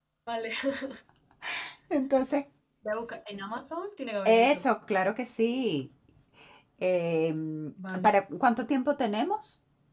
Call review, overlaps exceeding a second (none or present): none